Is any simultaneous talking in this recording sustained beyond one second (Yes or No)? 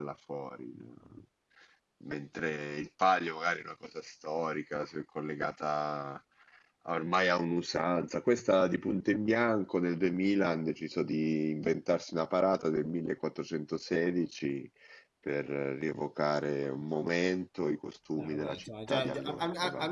Yes